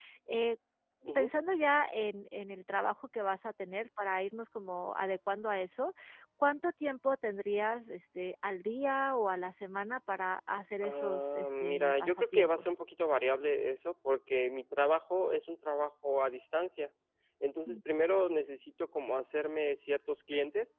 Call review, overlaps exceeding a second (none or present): present